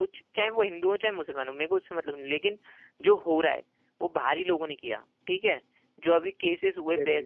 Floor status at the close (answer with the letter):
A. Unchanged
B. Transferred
A